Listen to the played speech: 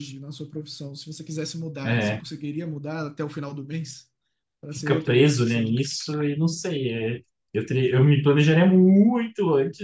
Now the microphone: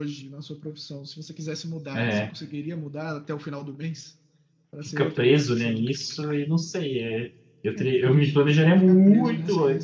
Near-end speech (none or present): present